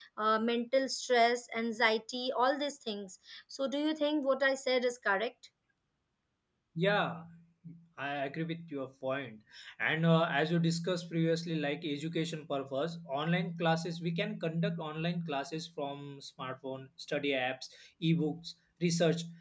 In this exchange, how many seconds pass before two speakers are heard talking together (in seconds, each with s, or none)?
none